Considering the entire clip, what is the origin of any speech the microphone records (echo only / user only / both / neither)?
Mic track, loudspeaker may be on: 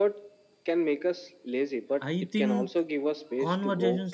both